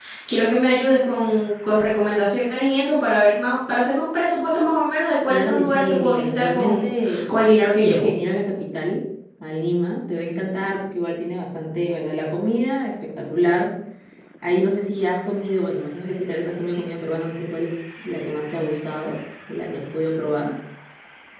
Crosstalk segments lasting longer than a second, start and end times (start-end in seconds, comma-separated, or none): 5.3-6.9